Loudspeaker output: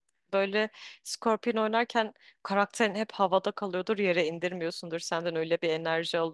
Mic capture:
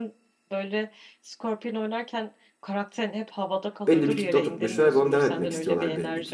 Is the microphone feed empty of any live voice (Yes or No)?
No